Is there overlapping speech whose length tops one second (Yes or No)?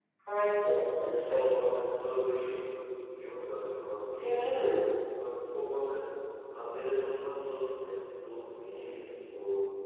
No